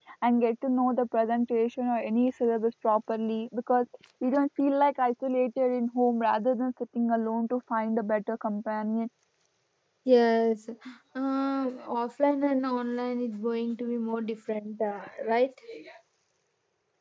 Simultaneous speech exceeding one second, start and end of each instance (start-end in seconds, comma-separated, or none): none